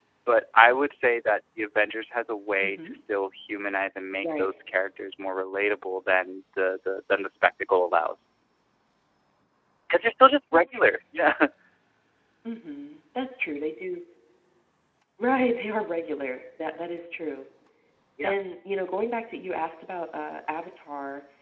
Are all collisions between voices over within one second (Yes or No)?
Yes